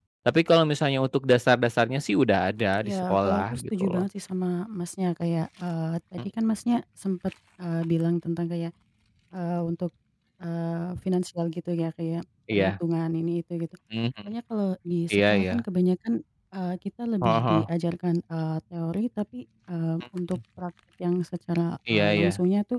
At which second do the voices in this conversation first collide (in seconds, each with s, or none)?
2.9 s